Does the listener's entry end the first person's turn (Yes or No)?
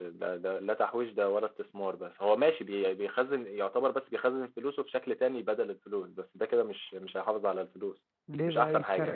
Yes